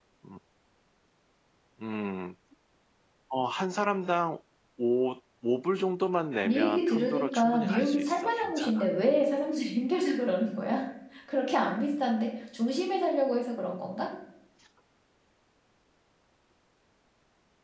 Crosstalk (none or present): present